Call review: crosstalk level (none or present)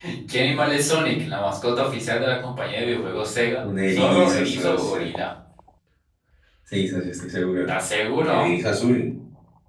present